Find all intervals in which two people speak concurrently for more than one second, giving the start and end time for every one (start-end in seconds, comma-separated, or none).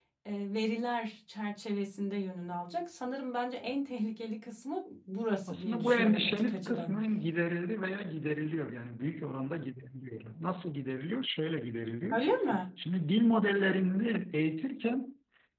5.5-7.0